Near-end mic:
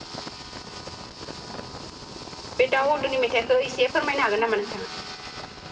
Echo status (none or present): none